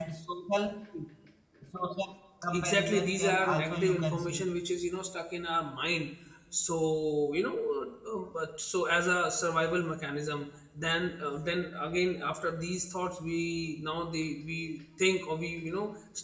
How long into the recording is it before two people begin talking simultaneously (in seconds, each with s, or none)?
2.5 s